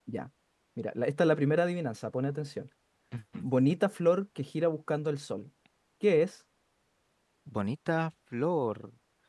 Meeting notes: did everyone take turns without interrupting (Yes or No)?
Yes